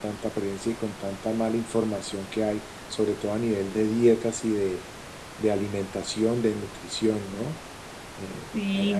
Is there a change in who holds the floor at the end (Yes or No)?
Yes